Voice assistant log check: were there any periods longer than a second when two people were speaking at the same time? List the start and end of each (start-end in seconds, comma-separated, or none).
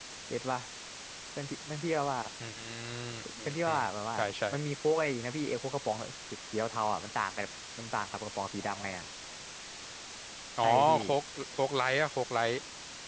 none